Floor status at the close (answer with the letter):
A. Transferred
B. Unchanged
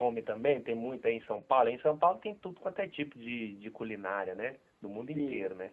A